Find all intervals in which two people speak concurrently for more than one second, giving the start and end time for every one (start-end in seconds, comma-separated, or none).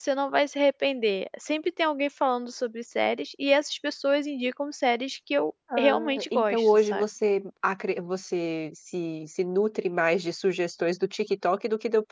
5.8-7.0